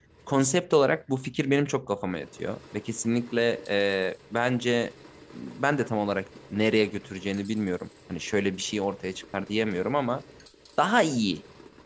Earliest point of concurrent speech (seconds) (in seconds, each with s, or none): none